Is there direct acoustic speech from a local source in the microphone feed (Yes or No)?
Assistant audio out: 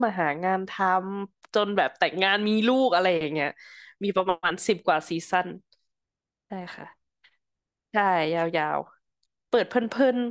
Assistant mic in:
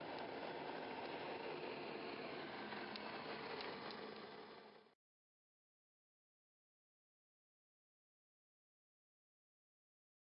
No